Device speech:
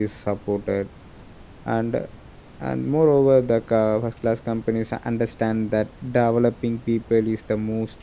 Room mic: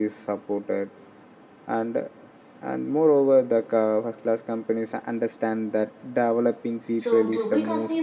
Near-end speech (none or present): present